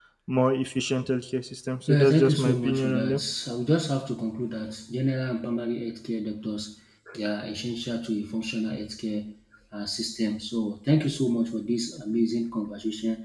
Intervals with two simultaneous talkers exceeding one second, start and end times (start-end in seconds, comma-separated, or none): 1.9-3.2